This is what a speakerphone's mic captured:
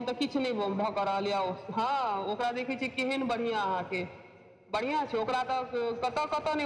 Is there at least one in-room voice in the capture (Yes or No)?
No